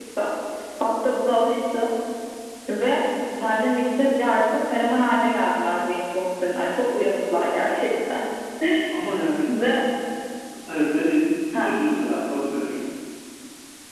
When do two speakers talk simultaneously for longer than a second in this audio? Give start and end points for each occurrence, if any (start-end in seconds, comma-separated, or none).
none